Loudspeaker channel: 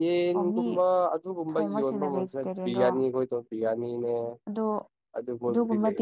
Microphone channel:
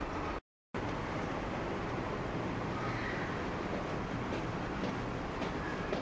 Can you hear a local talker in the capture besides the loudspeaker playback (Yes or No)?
No